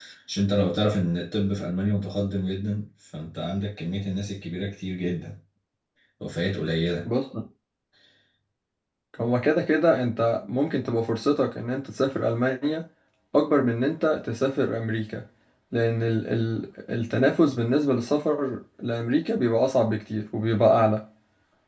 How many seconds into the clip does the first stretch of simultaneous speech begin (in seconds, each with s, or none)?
none